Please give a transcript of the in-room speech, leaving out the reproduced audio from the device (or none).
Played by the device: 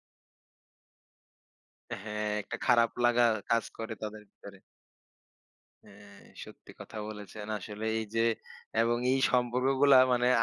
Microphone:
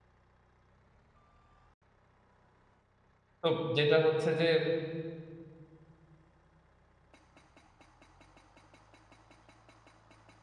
তো যেটা হচ্ছে যে